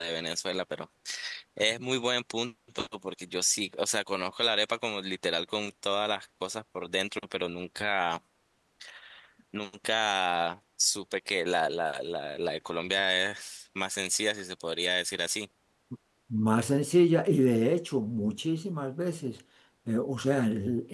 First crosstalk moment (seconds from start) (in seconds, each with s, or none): none